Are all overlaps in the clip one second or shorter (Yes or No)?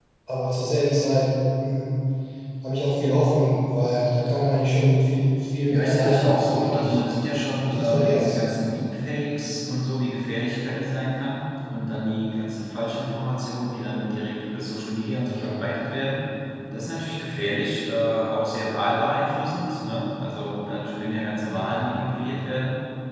No